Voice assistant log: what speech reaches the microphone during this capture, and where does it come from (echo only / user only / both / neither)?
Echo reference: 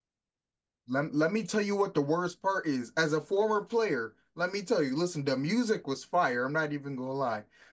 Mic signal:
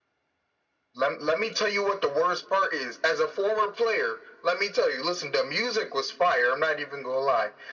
echo only